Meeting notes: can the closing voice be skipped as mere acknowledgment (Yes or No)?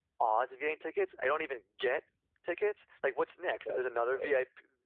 Yes